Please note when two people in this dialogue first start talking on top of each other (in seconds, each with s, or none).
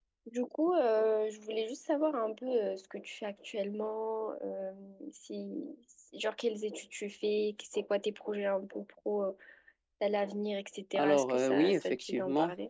10.9 s